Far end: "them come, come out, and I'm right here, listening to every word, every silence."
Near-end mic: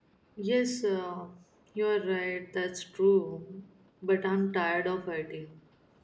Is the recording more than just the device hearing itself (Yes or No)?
Yes